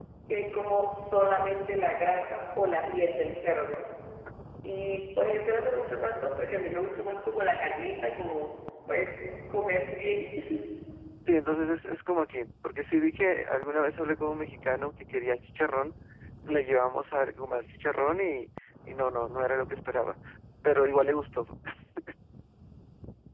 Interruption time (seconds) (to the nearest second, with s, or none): none